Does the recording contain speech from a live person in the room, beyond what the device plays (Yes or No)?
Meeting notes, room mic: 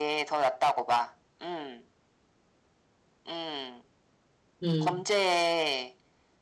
Yes